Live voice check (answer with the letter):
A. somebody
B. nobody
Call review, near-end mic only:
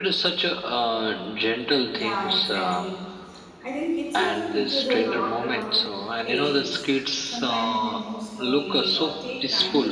A